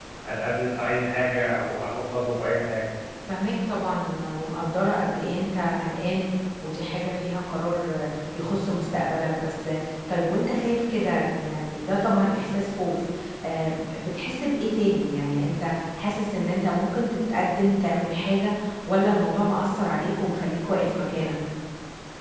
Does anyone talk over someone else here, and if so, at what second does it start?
none

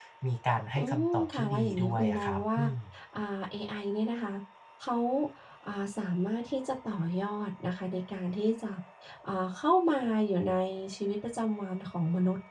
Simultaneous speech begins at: 0.8 s

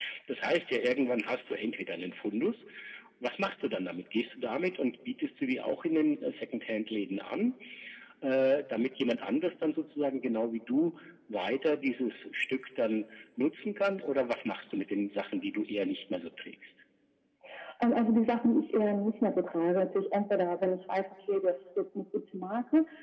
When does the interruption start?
none

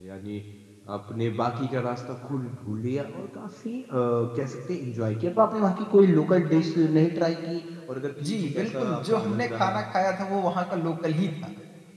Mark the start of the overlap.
8.2 s

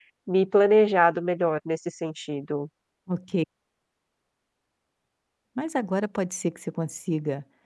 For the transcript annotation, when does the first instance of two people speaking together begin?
none

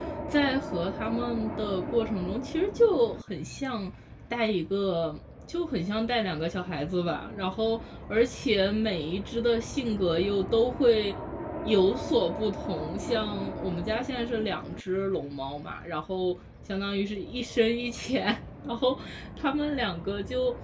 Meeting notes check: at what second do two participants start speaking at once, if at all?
none

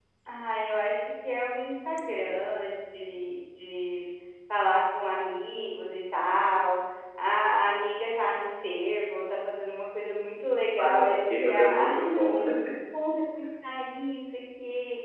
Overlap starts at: 10.8 s

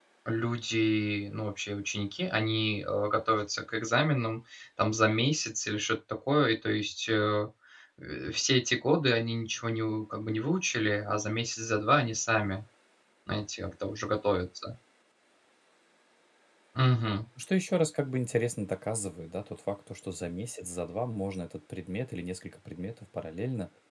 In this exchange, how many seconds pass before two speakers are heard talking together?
none

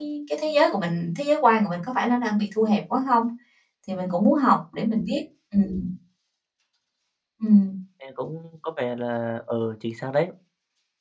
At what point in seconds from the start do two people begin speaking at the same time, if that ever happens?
none

